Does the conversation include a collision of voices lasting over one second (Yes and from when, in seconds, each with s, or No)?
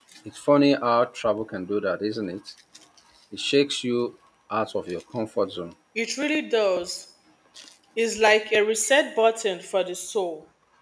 No